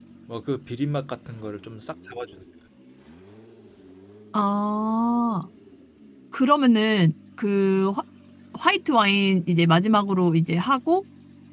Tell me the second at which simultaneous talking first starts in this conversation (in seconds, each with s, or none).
none